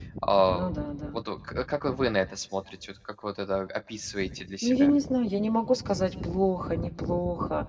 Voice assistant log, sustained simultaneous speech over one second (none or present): none